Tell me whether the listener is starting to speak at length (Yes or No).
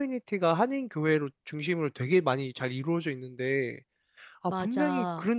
No